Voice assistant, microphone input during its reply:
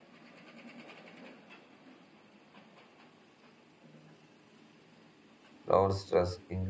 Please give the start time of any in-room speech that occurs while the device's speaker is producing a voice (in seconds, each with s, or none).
5.7 s